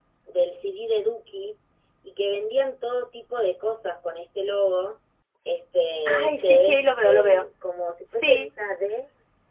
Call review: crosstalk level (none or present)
present